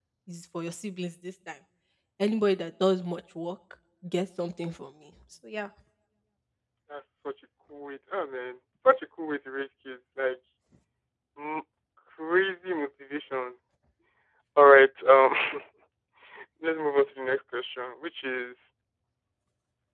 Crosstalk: none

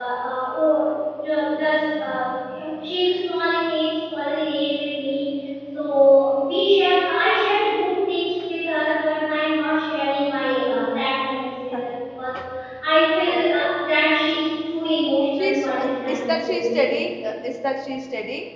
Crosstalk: present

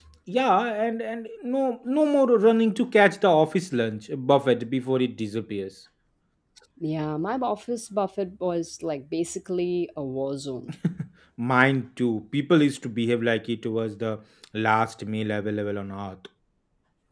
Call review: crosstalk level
none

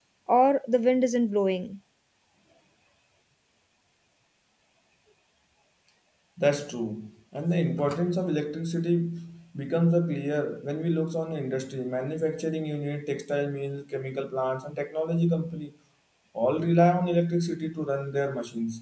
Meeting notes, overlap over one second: none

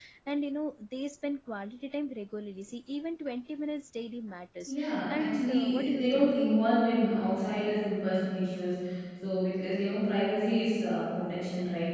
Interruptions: present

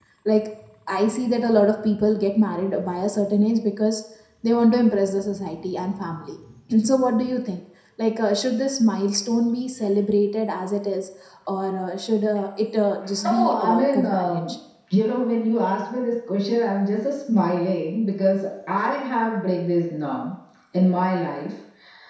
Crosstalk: present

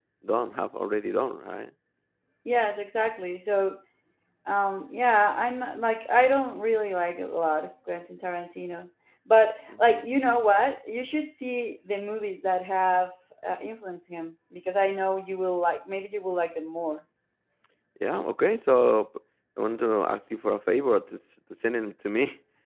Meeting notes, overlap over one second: none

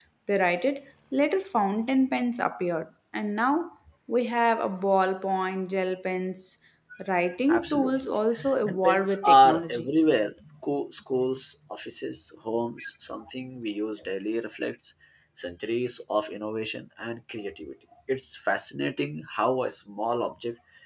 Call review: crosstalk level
present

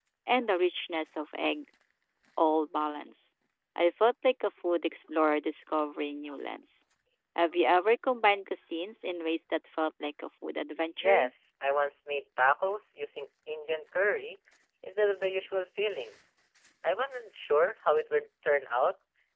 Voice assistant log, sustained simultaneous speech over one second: none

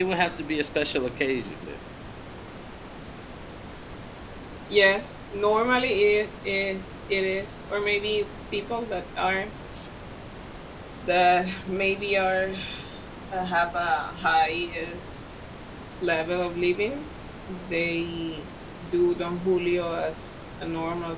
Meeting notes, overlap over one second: none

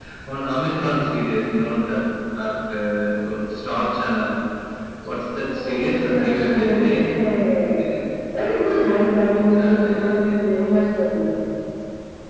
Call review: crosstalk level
present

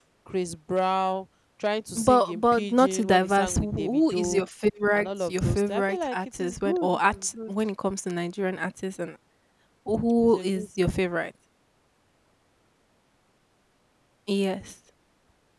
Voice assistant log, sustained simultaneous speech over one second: present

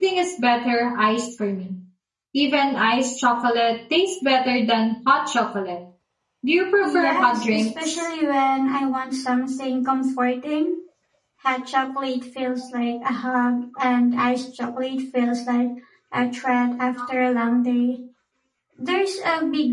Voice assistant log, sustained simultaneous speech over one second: present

